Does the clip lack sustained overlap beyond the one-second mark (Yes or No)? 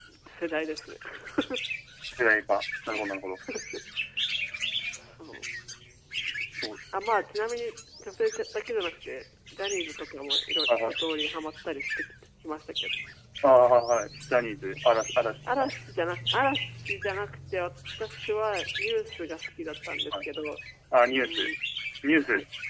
Yes